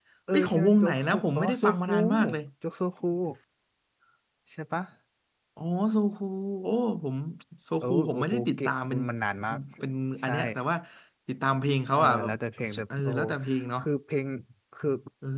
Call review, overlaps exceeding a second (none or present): present